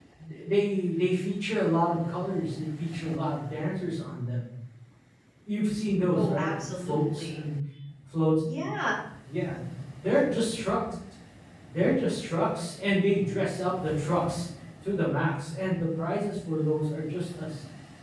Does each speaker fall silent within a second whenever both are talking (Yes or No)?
No